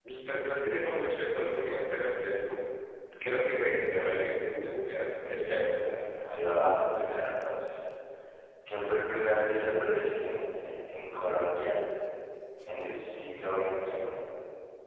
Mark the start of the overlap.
none

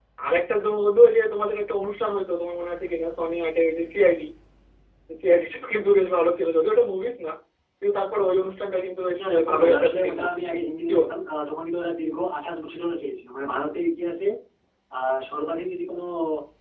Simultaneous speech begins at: 9.2 s

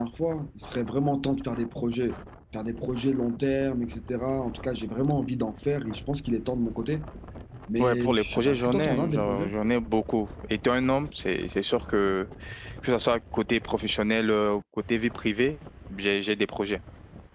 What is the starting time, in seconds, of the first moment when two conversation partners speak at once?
7.8 s

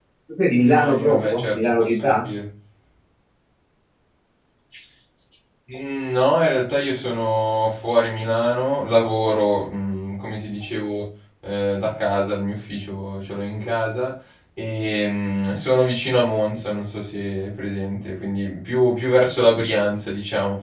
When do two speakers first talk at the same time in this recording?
0.6 s

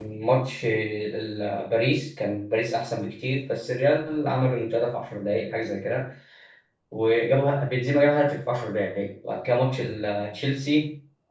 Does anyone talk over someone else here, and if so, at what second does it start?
none

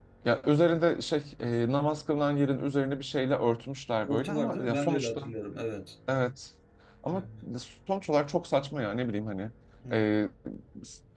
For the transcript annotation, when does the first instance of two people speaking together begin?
4.1 s

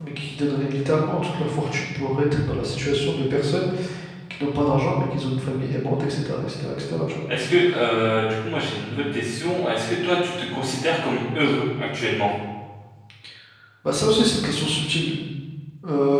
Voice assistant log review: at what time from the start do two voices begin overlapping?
none

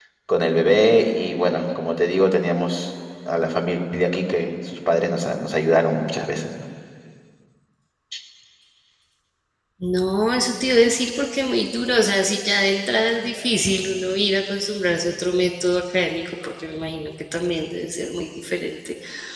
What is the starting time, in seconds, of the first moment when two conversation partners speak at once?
none

